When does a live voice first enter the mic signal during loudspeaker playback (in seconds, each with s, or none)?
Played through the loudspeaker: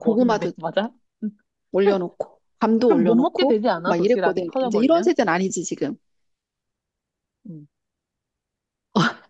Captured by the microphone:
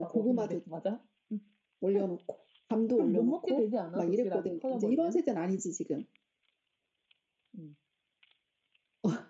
none